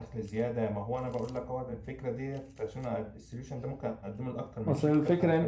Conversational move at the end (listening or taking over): taking over